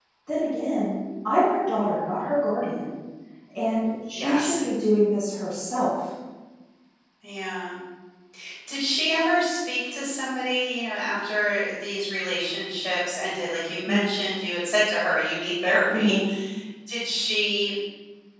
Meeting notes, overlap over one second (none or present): none